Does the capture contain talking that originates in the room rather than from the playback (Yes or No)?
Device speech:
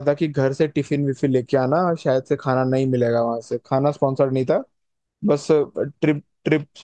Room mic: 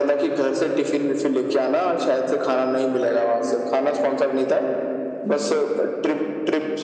No